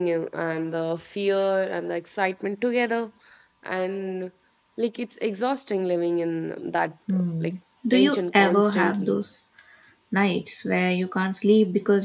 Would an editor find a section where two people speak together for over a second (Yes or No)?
Yes